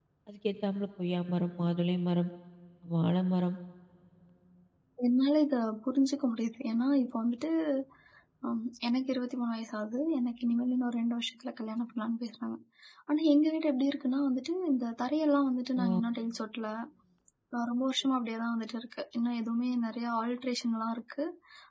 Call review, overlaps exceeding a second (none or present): none